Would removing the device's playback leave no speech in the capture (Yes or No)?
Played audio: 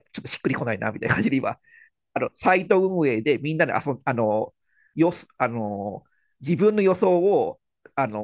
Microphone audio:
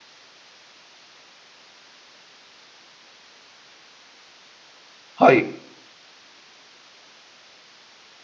No